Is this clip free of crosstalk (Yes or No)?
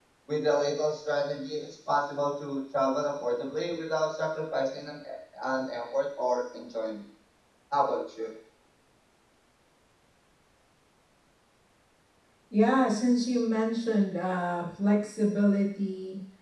Yes